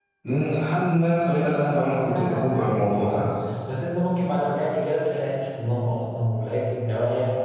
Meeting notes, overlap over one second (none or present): present